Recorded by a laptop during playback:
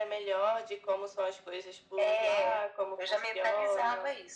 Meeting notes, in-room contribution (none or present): none